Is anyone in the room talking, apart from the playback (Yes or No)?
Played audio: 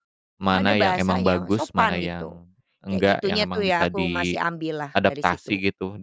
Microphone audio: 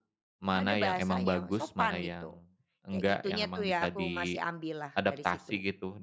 No